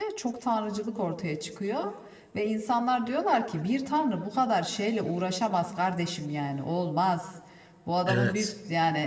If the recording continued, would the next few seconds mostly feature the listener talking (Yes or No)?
No